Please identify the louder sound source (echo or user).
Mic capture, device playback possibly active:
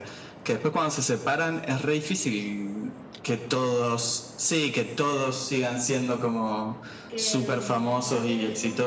echo